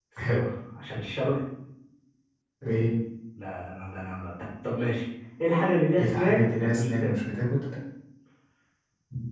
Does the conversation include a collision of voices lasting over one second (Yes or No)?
Yes